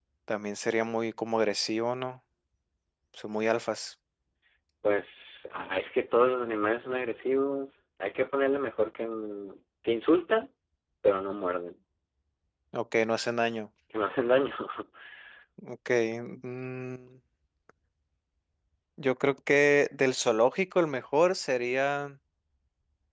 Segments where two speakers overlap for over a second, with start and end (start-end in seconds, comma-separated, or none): none